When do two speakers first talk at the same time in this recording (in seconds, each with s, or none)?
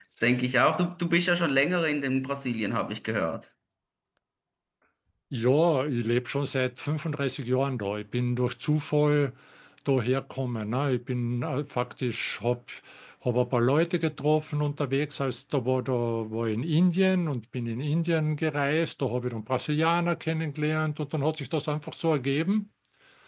none